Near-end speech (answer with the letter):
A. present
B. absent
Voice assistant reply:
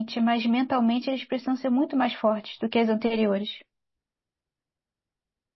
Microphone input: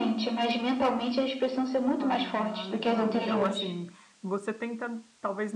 A